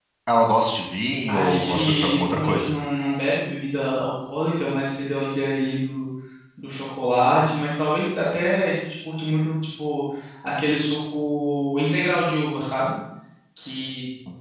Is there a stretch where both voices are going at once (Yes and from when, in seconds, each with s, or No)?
Yes, from 1.3 s